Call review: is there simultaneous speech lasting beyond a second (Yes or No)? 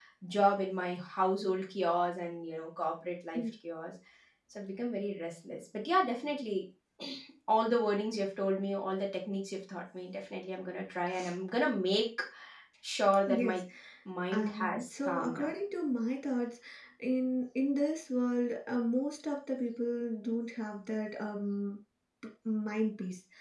Yes